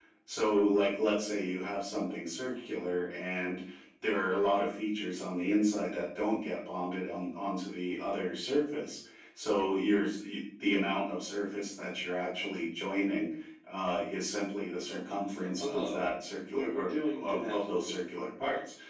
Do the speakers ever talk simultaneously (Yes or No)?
Yes